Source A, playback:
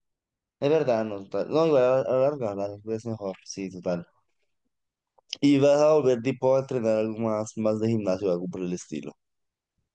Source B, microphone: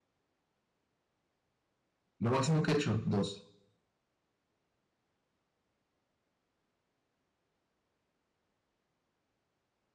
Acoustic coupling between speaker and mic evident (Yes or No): No